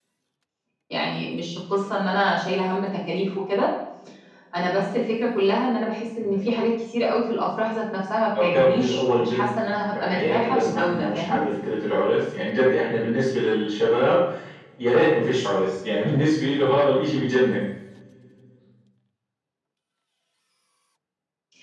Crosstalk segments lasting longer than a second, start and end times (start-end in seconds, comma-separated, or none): 8.4-11.4